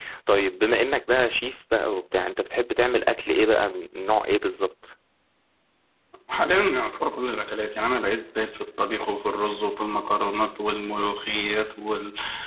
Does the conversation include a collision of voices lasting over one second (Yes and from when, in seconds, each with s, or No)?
No